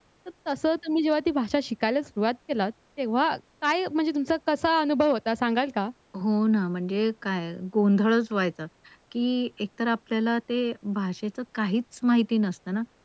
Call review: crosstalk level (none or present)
none